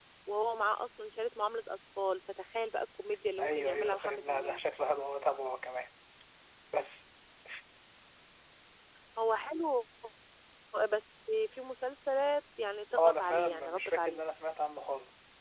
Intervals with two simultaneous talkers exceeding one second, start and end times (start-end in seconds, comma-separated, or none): 3.4-4.6, 13.0-14.2